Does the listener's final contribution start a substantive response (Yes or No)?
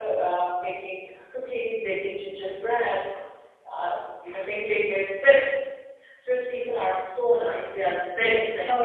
Yes